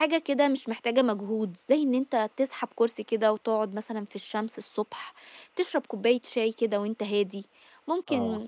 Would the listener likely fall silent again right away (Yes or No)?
Yes